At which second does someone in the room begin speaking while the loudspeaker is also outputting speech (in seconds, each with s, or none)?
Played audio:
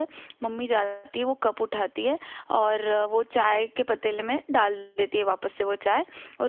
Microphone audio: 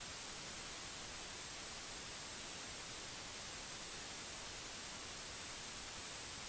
none